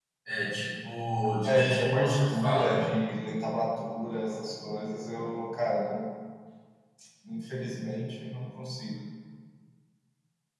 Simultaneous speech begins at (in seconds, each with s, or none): 1.4 s